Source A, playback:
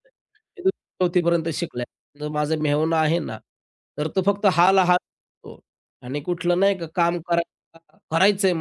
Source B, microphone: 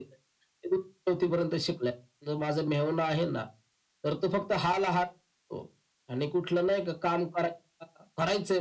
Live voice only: none

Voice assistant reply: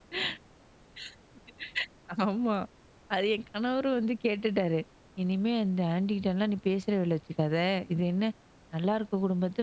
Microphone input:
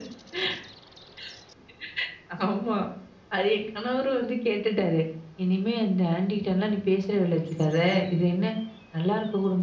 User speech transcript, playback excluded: none

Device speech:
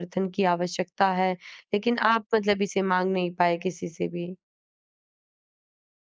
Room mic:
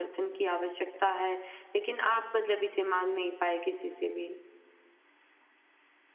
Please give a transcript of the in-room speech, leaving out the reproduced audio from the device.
none

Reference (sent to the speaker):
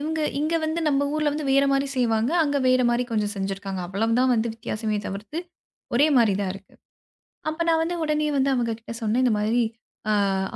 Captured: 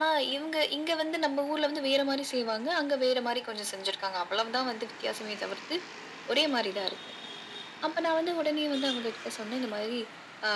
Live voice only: none

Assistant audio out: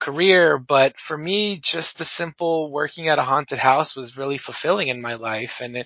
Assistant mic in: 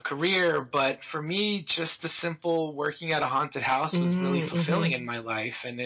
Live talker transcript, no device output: Mm, mhm.

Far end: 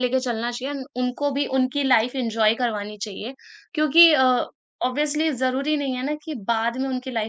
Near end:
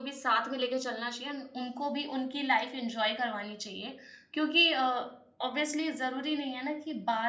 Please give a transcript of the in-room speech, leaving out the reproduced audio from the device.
none

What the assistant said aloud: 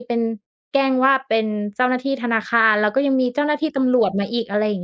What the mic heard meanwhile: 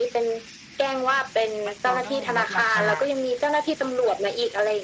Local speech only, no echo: แมคโดนัลด์ลดราคา

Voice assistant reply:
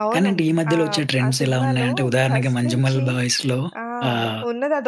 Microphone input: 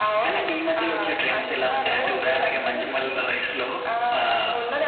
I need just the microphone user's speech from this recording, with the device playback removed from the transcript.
ఎవరు?

